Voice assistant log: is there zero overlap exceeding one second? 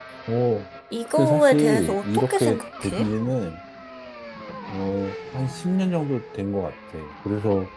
No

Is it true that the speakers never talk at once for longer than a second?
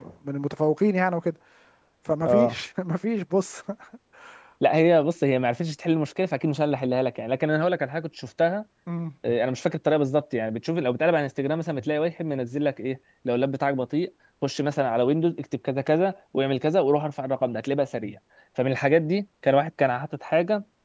Yes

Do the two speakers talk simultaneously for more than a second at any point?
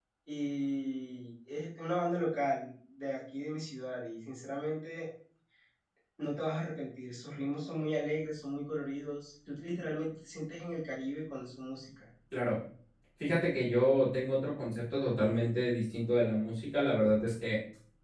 No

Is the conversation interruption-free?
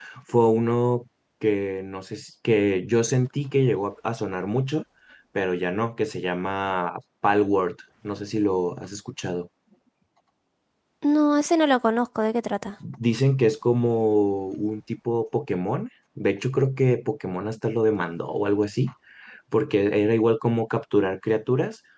Yes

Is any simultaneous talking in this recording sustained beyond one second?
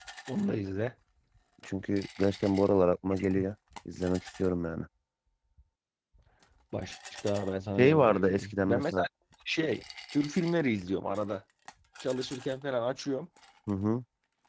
Yes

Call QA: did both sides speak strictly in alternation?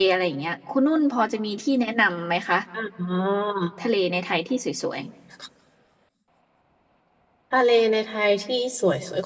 Yes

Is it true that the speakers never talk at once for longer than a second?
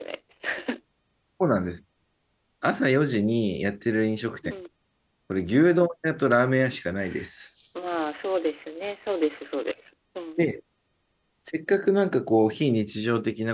Yes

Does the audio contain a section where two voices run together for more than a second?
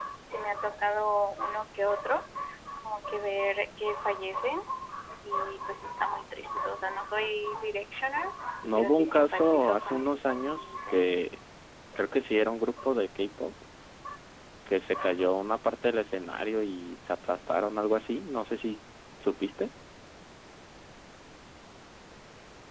Yes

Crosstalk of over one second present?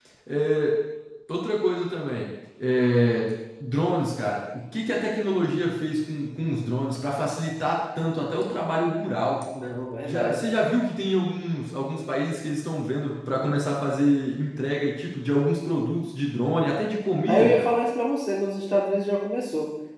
No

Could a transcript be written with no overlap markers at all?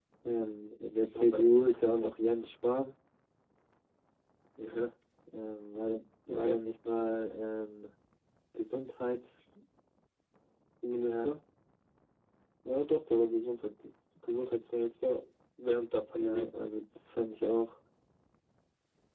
No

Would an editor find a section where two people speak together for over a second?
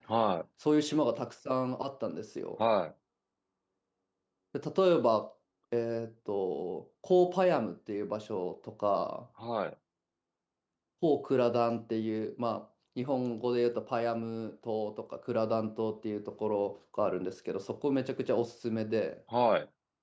No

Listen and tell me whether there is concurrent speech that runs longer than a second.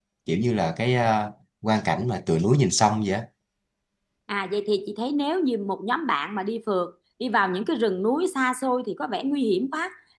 No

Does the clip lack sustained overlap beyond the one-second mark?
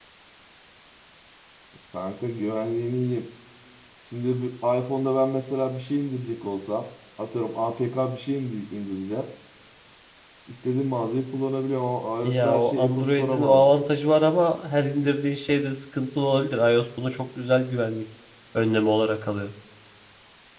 No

